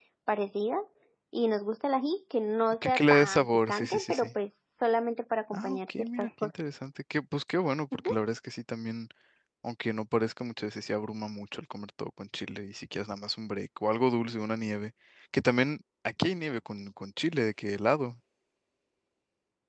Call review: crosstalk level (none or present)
present